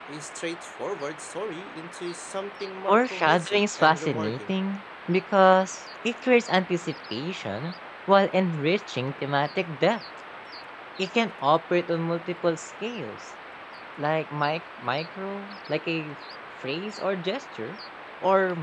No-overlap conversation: No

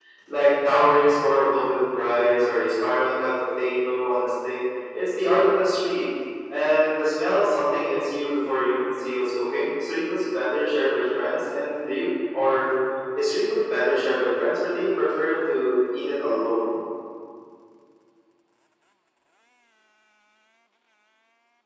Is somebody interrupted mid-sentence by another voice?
No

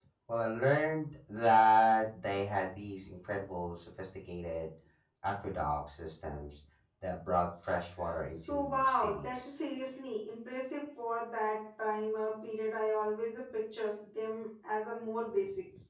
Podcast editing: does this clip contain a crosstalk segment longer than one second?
Yes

